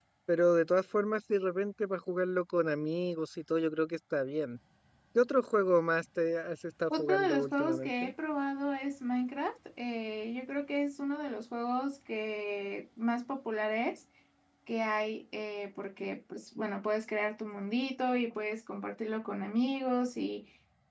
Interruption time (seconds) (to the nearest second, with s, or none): 7 s